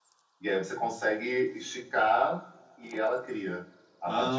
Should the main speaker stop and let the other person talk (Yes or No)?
Yes